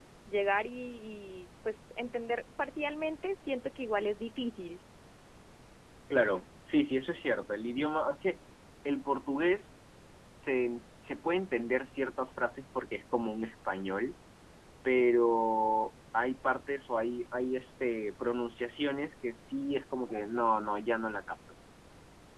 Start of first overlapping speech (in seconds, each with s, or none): none